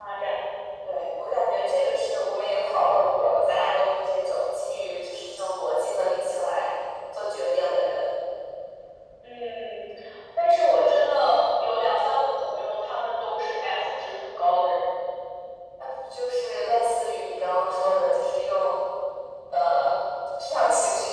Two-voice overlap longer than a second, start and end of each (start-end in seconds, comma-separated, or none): none